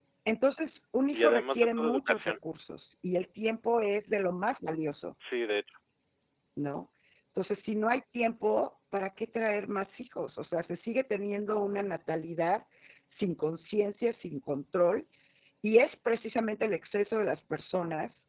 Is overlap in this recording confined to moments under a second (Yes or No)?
No